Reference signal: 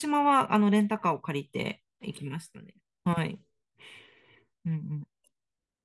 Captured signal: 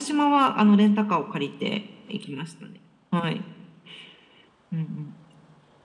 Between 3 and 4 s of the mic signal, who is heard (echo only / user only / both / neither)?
echo only